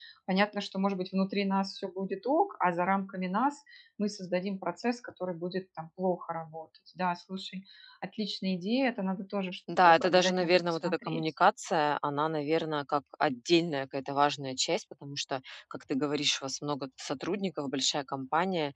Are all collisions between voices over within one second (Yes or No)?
No